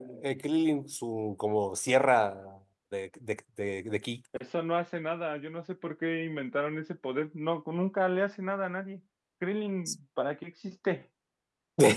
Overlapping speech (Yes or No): No